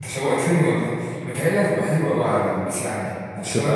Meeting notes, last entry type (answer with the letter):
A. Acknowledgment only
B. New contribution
A